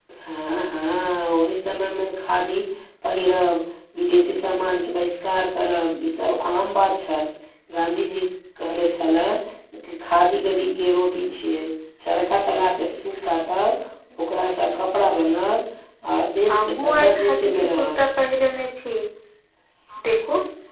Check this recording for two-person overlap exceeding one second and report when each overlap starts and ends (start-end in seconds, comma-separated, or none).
16.5-18.0